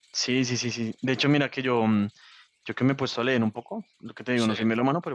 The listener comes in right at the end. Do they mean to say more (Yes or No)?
No